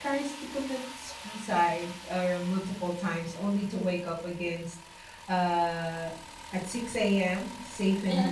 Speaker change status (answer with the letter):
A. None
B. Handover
A